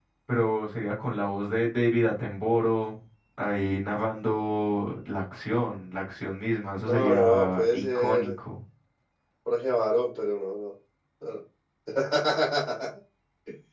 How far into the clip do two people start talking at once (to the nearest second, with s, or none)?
7 s